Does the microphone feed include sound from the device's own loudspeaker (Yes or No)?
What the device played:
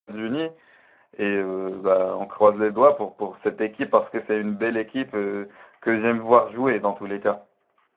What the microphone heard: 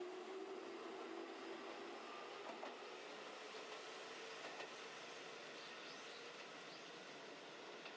No